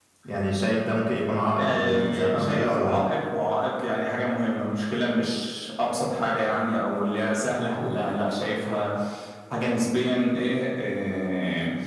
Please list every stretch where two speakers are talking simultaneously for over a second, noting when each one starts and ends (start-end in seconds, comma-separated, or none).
1.6-3.0